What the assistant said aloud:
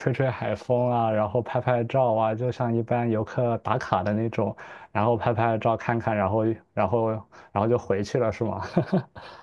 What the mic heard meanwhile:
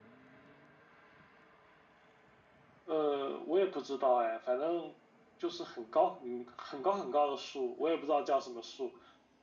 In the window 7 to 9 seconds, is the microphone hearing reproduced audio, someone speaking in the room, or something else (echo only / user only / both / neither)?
user only